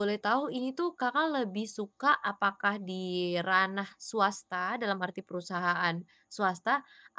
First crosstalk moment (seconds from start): none

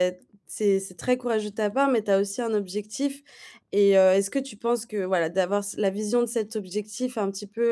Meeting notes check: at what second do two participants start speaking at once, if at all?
none

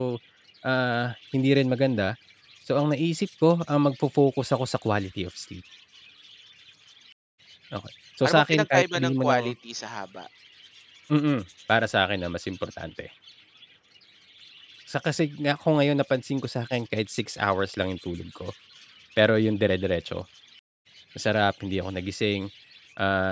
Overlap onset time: 8.2 s

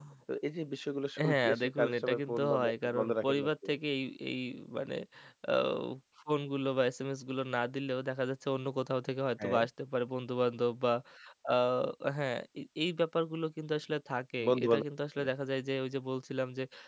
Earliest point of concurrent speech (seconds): 1.3 s

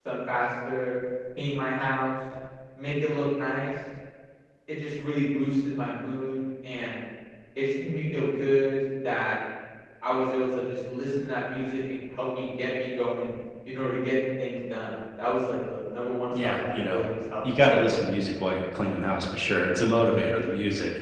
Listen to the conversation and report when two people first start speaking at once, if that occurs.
16.3 s

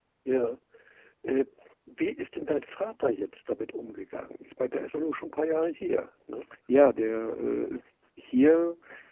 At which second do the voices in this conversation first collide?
none

